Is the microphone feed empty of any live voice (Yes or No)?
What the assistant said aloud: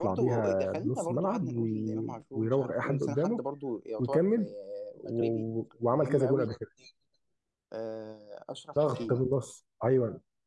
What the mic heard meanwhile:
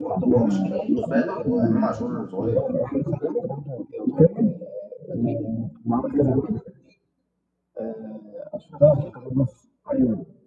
No